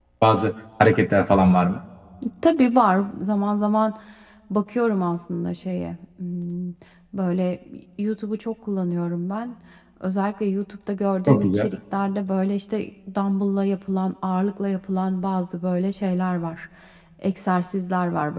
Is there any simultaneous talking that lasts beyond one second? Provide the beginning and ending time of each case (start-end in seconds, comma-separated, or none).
none